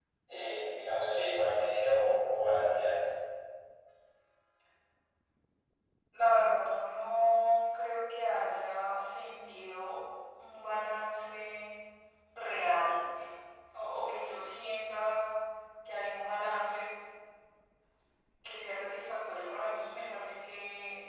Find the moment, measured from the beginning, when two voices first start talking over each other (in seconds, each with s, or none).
none